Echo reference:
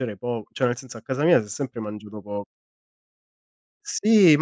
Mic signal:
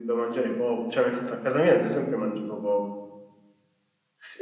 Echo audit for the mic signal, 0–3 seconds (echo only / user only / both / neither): echo only